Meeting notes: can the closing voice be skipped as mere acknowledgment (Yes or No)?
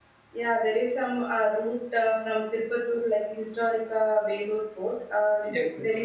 Yes